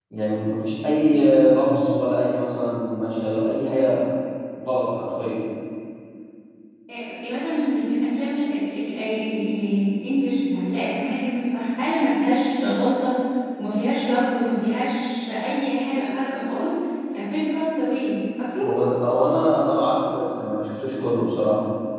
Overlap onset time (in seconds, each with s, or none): none